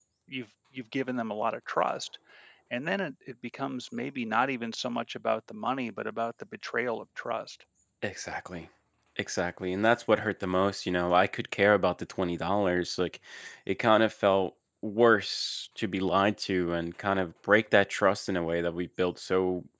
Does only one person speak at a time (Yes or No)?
Yes